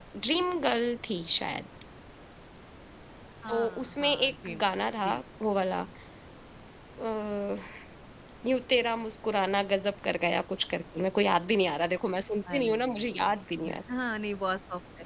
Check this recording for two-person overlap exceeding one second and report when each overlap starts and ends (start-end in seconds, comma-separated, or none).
3.5-5.2, 12.5-13.8